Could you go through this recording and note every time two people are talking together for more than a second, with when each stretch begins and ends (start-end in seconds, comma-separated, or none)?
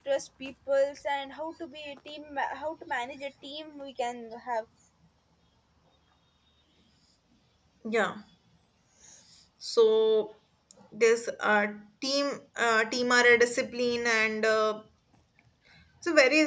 none